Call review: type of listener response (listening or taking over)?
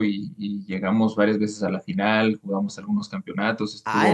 taking over